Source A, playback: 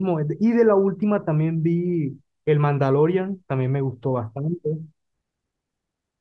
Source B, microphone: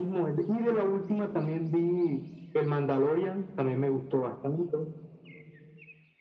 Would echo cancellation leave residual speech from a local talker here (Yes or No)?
No